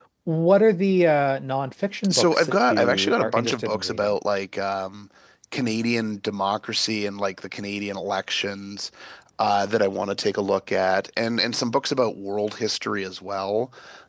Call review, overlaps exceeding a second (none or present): present